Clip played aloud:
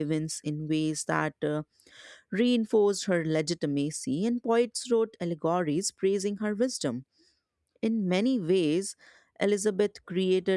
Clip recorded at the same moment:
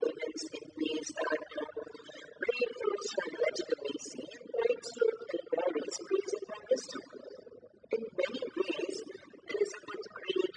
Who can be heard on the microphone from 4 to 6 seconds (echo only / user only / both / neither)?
echo only